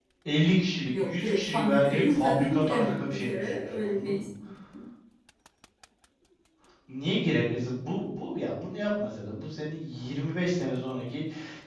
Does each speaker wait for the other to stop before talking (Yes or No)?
No